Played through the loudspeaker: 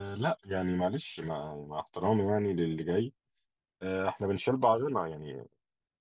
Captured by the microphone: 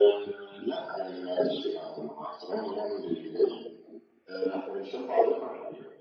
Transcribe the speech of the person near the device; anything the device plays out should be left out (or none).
none